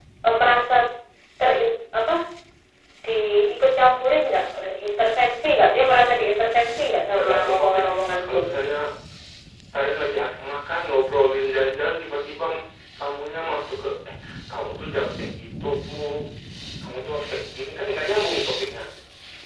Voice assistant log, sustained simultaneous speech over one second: present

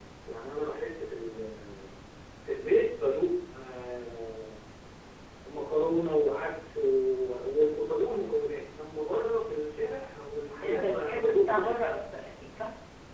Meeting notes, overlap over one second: present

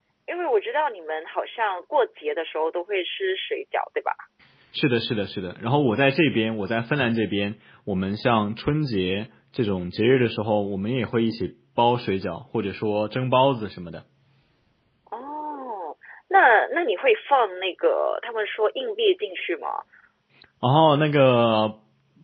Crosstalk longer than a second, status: none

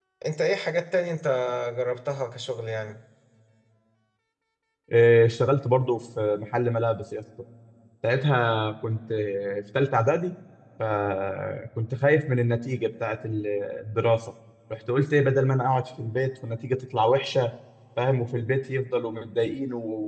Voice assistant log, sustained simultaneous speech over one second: none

